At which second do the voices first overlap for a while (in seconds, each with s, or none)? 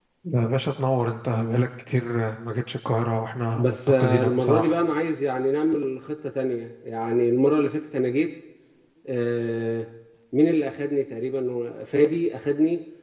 3.5 s